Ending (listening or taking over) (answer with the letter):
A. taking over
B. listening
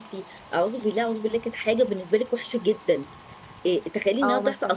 B